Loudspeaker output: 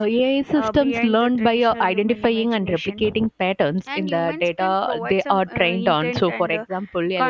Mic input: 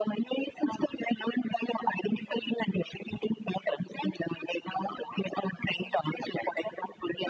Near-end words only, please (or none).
none